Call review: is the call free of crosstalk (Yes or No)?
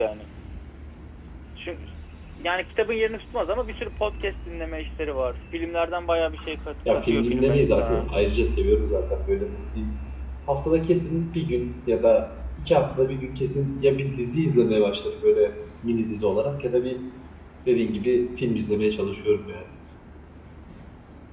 No